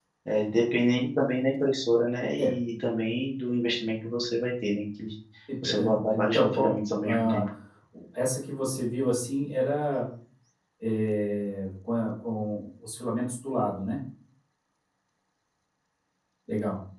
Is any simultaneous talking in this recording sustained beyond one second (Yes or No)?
Yes